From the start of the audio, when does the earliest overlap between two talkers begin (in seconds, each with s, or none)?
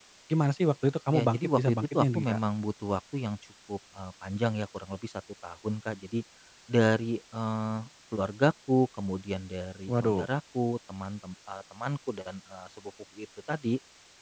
1.1 s